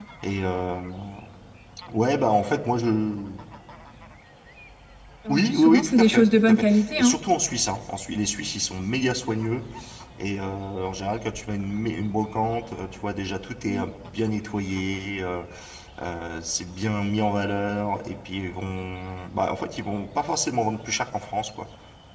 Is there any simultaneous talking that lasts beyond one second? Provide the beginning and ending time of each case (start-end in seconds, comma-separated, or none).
5.3-7.2